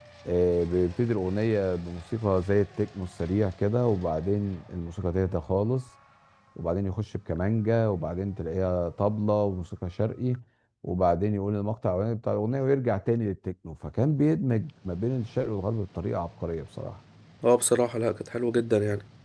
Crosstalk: none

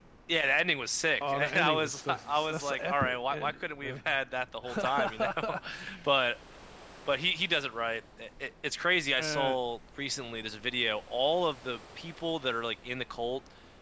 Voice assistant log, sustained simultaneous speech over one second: present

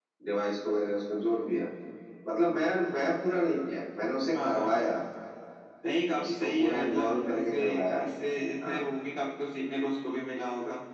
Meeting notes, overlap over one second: present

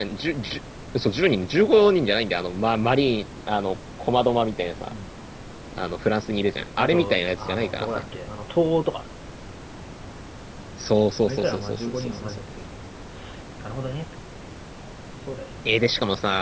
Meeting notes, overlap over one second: present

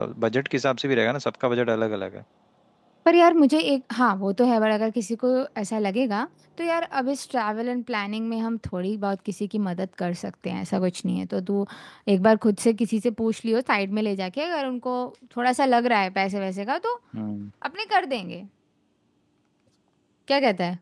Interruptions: none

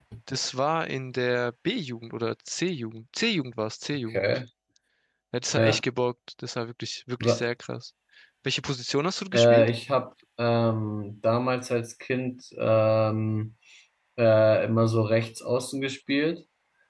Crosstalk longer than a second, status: none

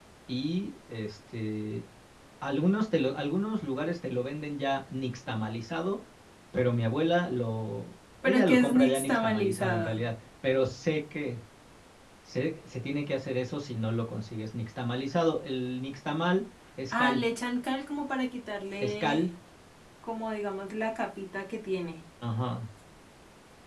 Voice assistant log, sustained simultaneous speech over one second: present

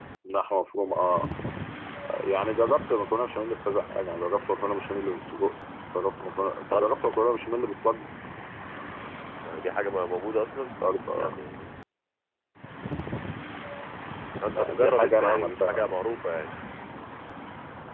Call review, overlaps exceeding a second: present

